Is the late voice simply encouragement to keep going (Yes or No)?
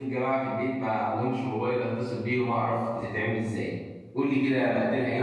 No